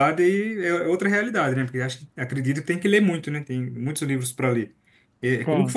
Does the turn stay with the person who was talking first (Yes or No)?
Yes